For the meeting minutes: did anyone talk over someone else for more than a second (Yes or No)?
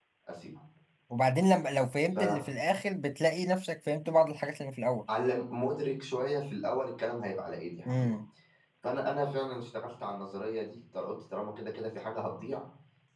No